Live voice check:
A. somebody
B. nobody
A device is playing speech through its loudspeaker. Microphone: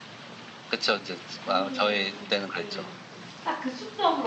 A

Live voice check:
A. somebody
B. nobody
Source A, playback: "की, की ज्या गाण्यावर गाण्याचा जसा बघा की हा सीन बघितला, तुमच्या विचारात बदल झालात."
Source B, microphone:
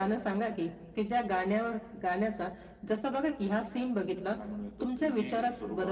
A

